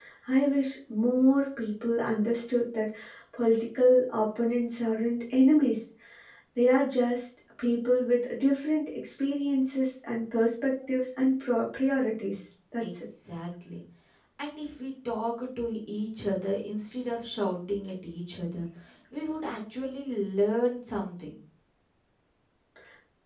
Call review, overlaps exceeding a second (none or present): none